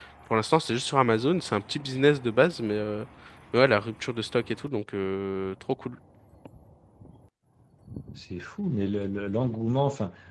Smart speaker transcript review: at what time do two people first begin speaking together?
none

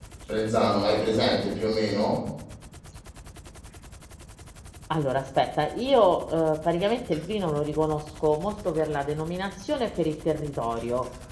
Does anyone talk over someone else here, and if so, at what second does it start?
none

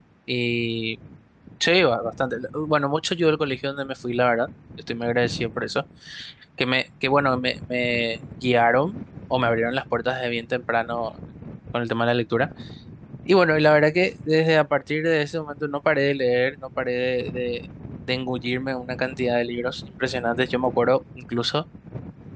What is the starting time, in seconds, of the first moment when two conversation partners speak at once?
none

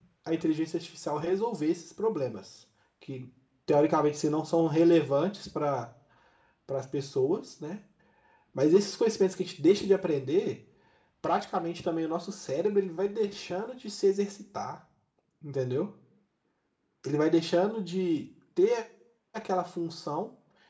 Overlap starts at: none

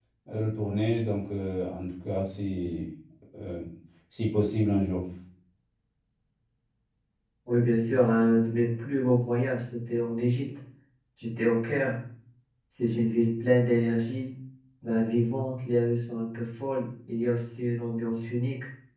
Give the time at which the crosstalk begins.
none

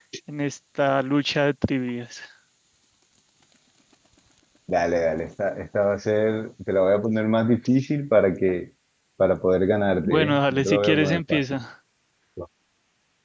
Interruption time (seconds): 10.0 s

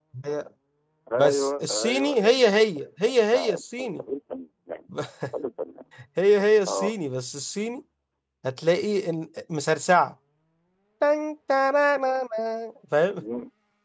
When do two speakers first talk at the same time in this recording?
1.2 s

